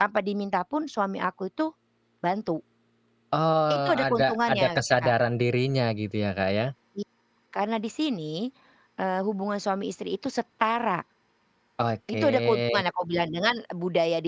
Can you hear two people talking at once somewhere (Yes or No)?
Yes